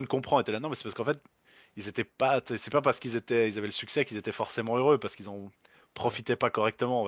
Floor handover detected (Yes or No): No